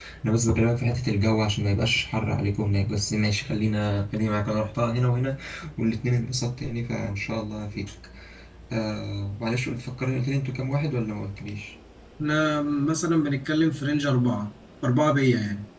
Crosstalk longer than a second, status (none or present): none